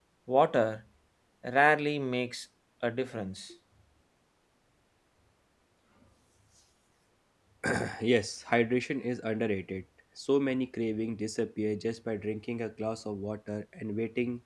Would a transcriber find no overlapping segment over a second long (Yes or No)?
Yes